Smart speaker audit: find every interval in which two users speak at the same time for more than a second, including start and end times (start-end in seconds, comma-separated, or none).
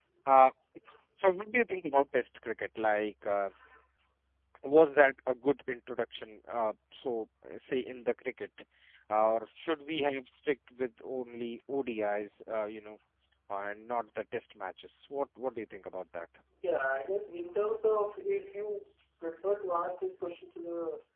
none